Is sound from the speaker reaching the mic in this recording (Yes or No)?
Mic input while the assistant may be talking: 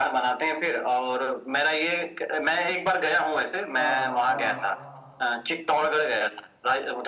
Yes